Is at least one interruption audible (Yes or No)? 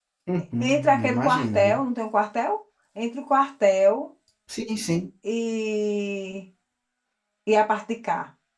Yes